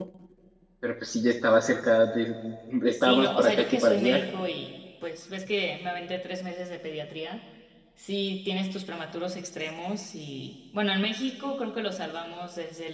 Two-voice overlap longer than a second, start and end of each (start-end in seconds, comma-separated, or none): 3.0-4.2